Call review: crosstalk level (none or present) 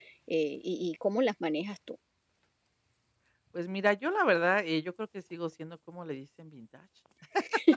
none